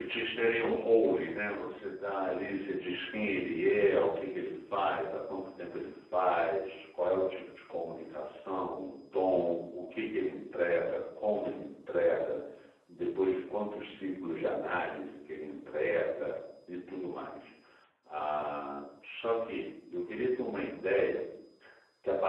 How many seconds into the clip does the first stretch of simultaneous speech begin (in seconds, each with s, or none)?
none